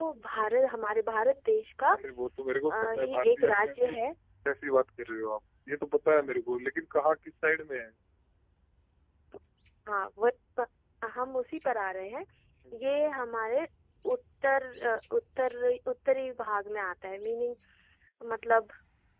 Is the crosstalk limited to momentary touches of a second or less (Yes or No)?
No